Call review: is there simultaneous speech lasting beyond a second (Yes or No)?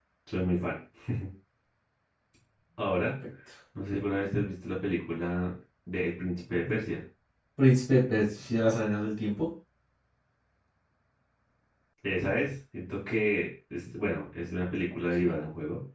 No